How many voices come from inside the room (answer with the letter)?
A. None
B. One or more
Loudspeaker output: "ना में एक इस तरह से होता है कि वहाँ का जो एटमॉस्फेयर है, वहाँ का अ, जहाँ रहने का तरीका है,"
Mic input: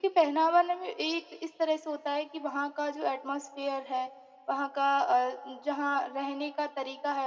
A